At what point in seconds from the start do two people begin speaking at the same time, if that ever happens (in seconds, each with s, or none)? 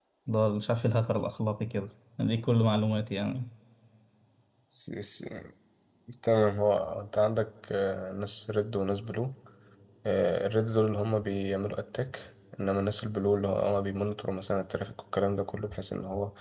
none